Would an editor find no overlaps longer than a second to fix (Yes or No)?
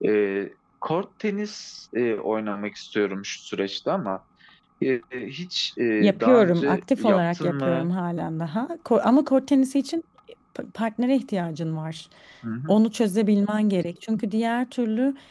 No